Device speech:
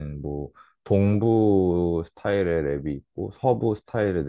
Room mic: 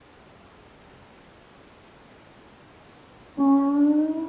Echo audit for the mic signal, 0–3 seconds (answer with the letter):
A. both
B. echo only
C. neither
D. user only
C